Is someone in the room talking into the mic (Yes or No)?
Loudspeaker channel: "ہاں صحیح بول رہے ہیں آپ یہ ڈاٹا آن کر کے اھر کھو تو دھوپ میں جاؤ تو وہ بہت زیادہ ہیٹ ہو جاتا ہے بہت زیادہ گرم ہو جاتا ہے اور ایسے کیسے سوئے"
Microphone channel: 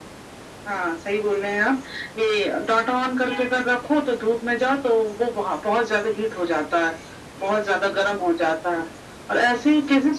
No